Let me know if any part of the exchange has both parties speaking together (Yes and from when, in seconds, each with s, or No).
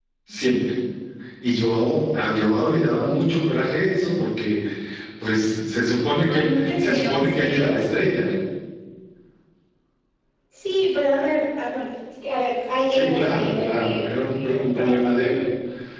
Yes, from 6.3 s